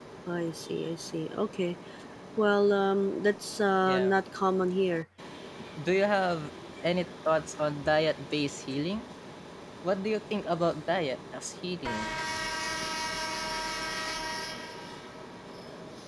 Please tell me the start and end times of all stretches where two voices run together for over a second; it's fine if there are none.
none

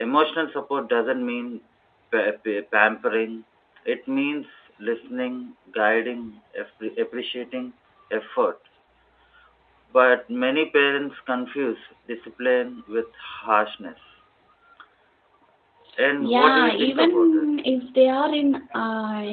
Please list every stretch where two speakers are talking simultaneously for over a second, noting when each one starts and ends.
16.2-17.4

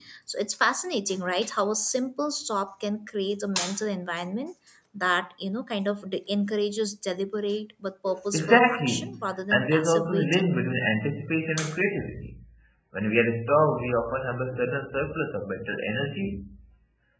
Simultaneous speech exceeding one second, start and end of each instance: 8.3-10.4

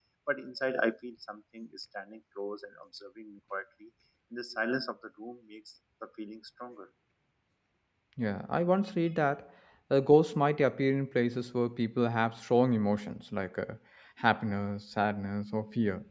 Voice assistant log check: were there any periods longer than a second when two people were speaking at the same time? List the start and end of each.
none

